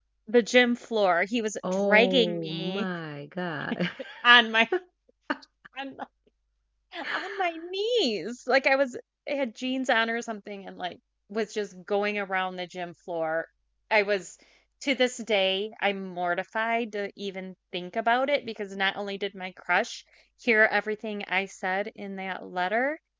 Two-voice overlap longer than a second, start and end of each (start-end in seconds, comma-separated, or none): 1.6-2.9